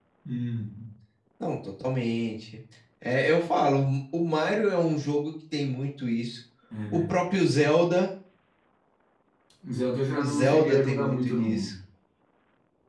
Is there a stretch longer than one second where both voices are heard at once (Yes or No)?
Yes